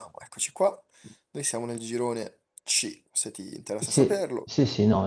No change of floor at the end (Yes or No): No